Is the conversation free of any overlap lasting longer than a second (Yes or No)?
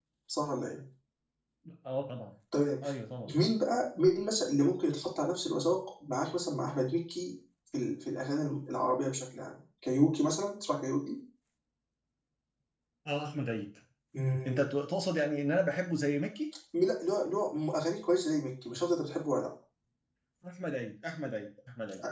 Yes